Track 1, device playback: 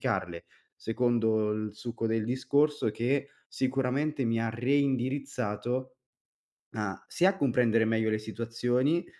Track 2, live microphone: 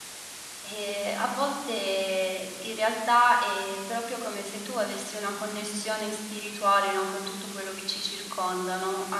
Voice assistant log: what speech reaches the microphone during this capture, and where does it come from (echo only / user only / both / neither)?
user only